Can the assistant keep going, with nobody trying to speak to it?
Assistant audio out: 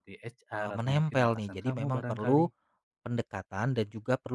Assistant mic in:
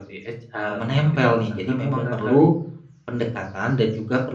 Yes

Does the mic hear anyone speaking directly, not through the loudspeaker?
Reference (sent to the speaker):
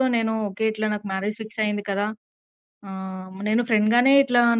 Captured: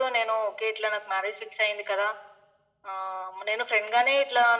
No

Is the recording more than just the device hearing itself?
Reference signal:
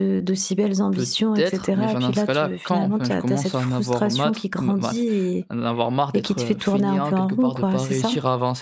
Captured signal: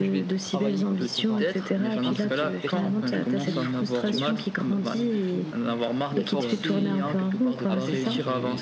Yes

